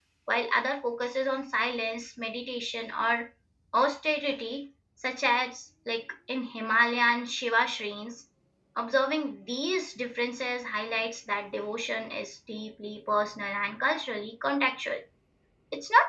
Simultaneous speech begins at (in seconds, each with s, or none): none